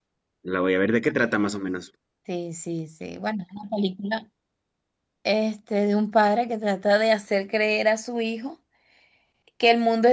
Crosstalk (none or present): none